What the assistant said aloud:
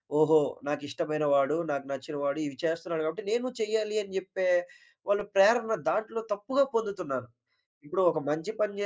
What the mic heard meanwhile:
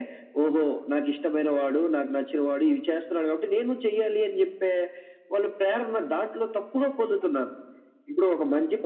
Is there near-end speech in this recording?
No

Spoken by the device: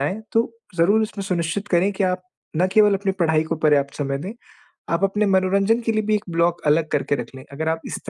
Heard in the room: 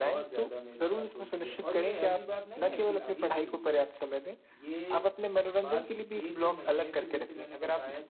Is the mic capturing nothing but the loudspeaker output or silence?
No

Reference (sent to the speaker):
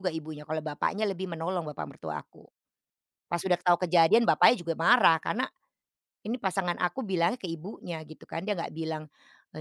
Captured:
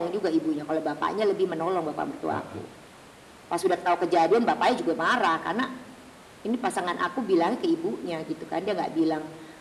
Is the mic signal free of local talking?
No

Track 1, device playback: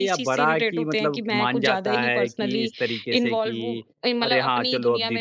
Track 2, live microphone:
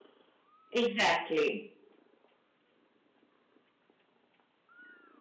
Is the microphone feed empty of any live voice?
No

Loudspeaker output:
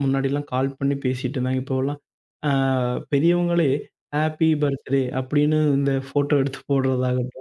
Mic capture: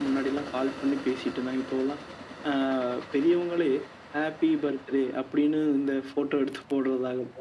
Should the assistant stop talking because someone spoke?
No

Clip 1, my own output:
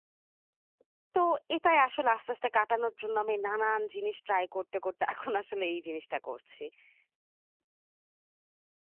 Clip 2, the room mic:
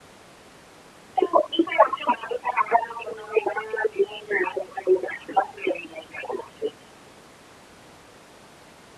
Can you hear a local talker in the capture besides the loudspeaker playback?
No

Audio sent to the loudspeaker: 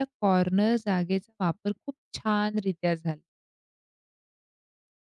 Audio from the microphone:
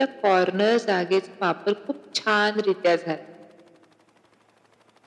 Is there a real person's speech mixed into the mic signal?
No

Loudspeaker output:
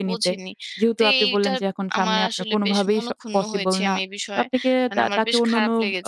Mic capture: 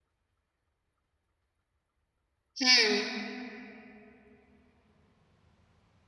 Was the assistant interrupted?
Yes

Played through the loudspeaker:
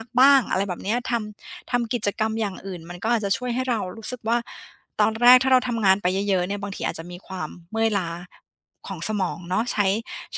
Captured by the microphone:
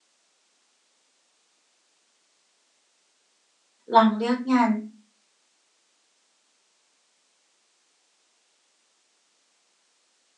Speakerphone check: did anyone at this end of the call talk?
Yes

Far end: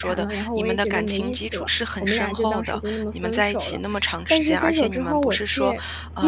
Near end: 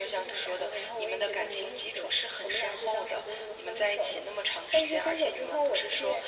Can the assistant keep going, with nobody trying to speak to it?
Yes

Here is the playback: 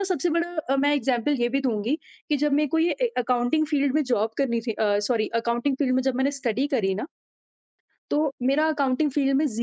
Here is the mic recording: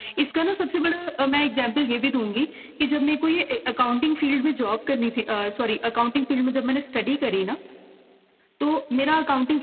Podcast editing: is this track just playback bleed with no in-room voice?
Yes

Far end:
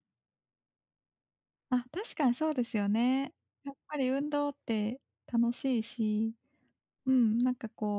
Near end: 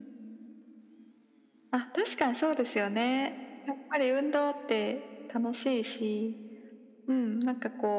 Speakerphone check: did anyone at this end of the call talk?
No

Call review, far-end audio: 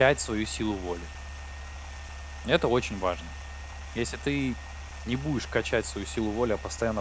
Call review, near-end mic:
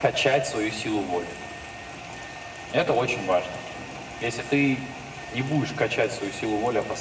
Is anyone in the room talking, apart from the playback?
No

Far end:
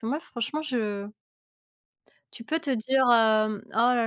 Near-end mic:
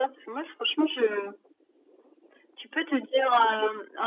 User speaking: No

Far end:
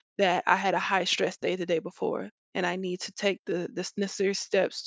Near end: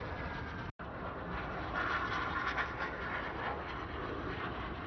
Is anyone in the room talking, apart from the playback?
No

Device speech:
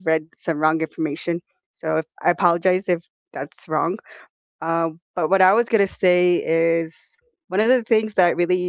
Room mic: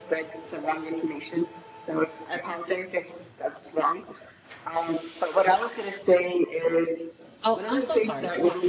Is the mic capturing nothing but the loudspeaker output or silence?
No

